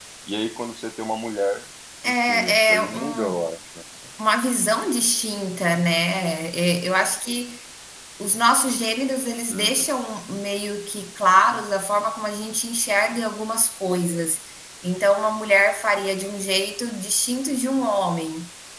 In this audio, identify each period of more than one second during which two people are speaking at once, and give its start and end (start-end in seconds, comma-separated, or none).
2.0-3.5